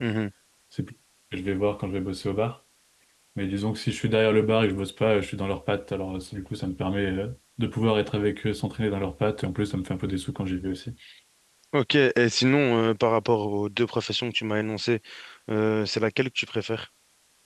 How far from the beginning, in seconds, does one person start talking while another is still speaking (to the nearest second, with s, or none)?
none